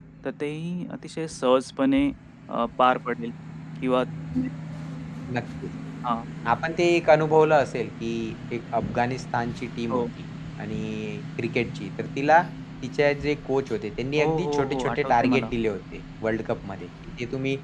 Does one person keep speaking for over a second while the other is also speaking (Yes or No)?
Yes